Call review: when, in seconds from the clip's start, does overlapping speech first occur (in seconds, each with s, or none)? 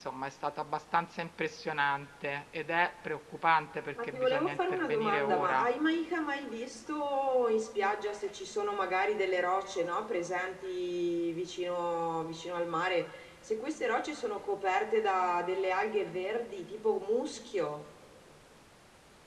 4.0 s